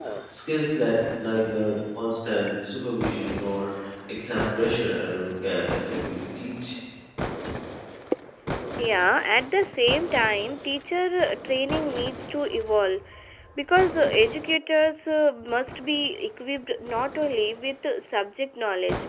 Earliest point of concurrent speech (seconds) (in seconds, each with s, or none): none